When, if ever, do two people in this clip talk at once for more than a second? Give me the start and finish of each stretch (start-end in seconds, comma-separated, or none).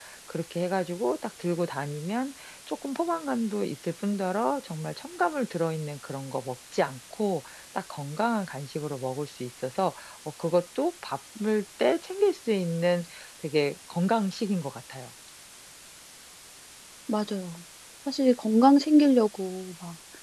none